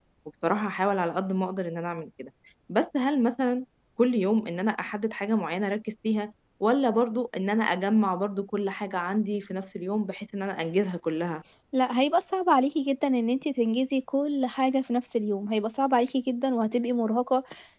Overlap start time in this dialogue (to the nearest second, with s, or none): none